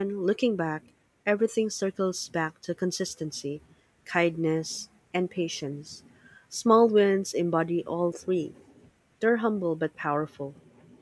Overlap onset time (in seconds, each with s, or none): none